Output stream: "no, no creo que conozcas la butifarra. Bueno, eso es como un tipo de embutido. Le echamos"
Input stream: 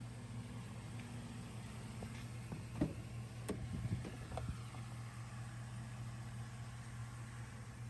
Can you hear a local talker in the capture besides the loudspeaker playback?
No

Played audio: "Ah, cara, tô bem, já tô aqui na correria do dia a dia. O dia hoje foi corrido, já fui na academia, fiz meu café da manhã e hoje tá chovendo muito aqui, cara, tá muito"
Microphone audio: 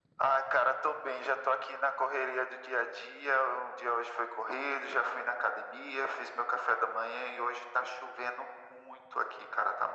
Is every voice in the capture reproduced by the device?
Yes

